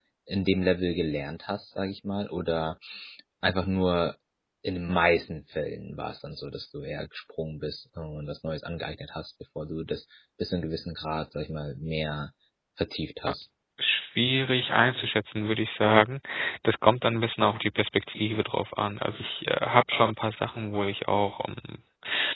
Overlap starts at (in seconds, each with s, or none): none